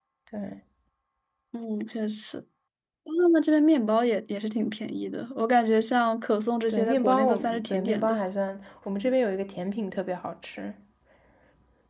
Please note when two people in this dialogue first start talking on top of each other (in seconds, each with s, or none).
6.7 s